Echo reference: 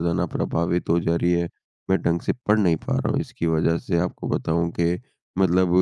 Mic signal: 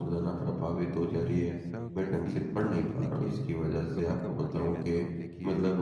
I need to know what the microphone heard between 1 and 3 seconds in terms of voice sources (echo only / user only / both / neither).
both